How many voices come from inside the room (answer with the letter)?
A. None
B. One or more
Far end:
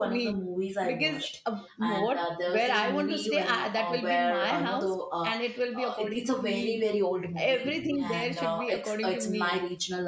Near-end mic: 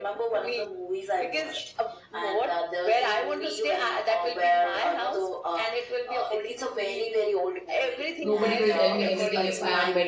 B